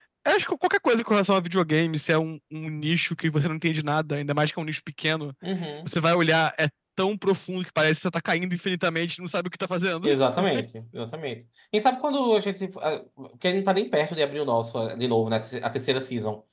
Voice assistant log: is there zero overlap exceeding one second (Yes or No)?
Yes